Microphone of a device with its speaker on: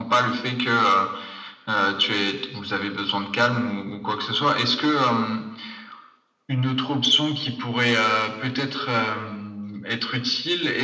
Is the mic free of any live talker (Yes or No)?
Yes